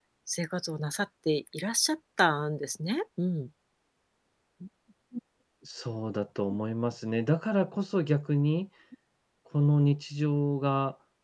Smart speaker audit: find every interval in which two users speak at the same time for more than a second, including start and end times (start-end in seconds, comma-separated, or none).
none